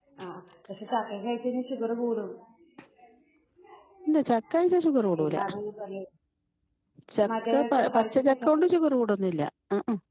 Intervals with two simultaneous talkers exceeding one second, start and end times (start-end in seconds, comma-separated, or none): 7.4-8.8